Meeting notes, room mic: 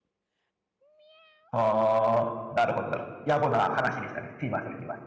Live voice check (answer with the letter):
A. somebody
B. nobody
A